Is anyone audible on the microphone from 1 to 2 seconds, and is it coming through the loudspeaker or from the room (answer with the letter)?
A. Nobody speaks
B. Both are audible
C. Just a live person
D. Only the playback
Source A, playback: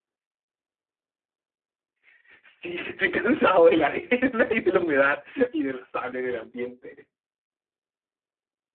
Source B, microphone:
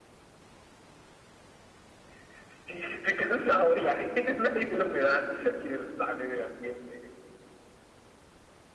A